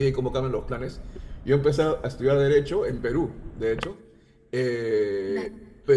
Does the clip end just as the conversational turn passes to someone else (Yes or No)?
No